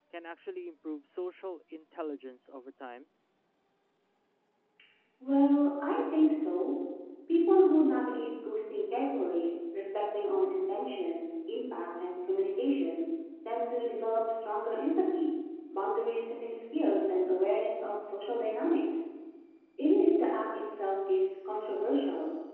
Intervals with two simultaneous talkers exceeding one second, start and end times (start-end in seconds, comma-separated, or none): none